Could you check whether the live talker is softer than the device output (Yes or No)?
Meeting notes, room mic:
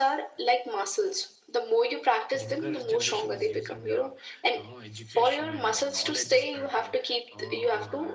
Yes